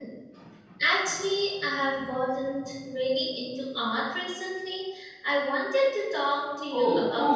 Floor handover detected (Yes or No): Yes